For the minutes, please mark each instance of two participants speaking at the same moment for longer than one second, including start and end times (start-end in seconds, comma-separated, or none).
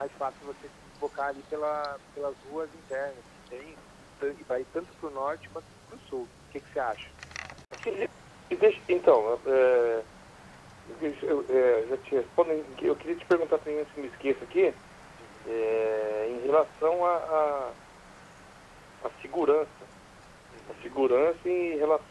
none